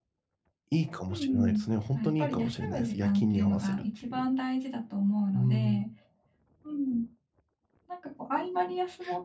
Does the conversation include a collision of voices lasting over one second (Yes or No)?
Yes